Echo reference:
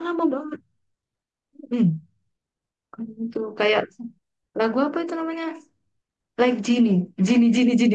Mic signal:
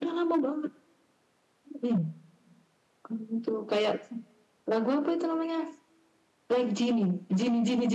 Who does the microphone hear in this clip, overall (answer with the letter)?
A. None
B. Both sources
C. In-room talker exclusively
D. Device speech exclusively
D